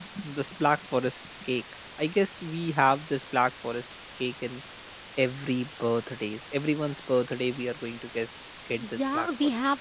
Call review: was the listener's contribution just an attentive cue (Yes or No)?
No